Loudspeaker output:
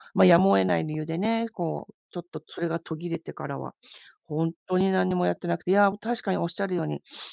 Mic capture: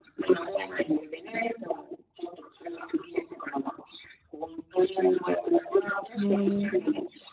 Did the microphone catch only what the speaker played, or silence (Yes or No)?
No